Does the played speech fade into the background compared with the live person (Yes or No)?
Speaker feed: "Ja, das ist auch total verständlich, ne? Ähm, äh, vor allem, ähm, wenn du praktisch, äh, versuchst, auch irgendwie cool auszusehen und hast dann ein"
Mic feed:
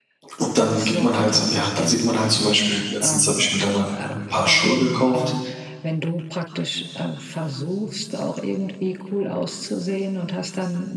Yes